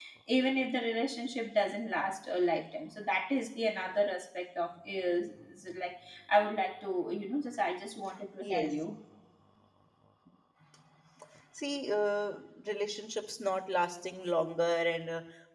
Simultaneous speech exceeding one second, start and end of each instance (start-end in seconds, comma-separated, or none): none